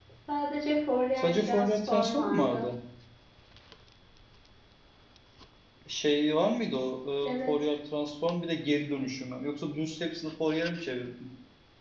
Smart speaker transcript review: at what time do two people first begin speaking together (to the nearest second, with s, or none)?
1 s